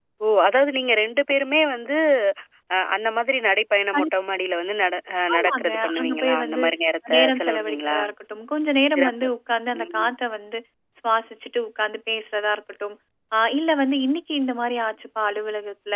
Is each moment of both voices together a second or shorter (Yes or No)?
No